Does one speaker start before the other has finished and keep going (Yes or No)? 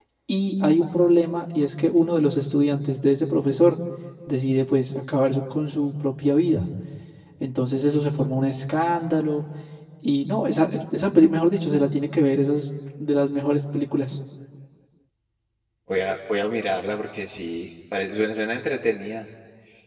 No